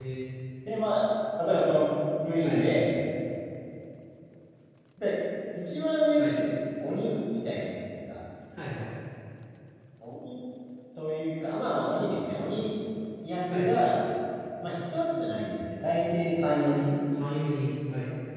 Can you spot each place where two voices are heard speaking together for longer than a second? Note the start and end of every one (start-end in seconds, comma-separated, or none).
none